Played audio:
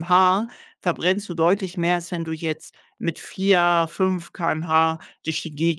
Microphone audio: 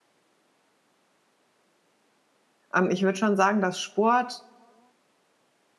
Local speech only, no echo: ähm, ich würde schon sagen, dass Sport

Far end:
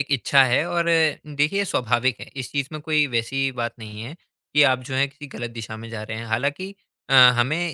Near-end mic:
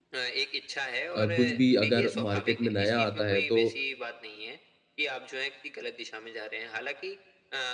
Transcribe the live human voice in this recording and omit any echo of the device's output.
अ, कुछ भी अगर मार्केट में नया आता है तो

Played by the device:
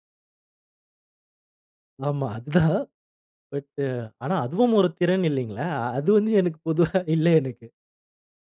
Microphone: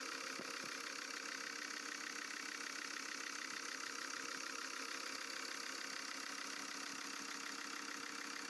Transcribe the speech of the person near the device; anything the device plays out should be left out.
none

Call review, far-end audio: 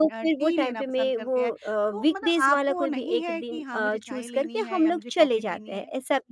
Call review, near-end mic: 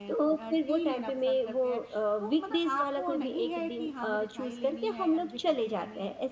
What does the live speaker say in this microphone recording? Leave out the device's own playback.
none

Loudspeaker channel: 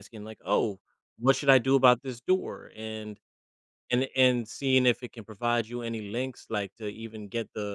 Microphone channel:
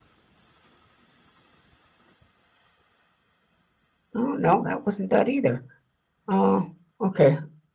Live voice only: oh no, that wasn't that either. Oh, okay.

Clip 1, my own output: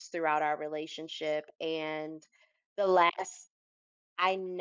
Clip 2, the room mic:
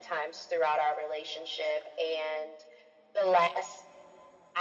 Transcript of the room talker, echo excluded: none

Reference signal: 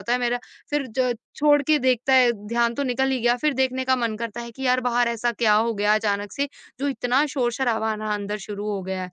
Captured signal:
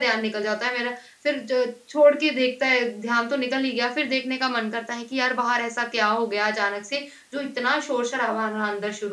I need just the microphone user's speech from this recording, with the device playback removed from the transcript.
none

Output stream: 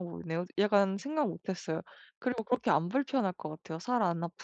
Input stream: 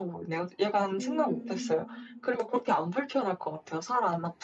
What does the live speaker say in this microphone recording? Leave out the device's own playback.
음.

